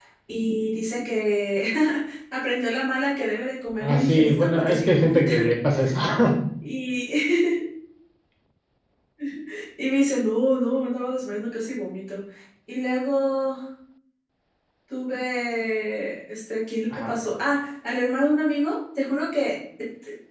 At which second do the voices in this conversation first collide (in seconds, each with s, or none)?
3.8 s